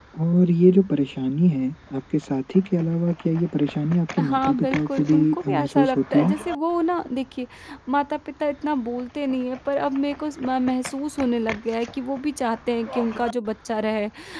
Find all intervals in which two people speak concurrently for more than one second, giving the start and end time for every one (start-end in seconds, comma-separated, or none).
4.2-6.3